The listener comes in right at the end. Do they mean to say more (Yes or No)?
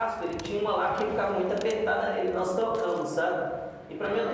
No